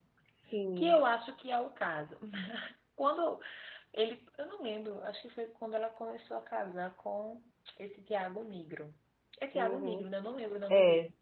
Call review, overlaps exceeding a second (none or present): none